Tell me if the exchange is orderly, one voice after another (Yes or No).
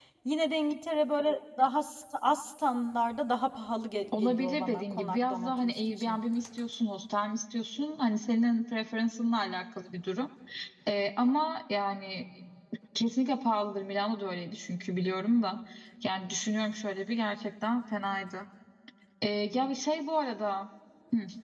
No